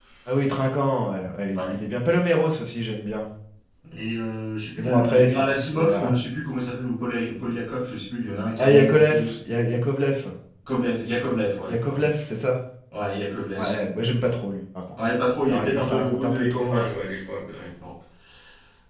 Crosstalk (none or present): present